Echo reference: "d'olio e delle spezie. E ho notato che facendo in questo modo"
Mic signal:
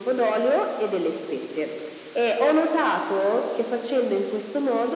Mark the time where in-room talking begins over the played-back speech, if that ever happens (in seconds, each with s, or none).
none